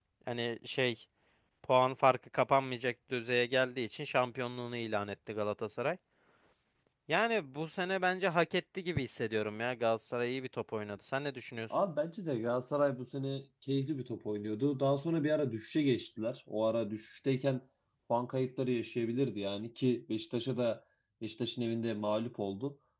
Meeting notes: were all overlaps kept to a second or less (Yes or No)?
Yes